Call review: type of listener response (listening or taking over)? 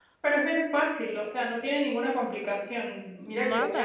listening